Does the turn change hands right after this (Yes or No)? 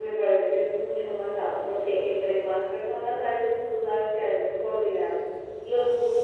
No